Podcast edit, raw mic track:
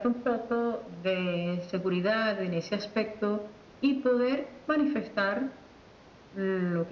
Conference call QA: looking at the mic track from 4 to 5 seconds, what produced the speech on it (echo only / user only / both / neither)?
echo only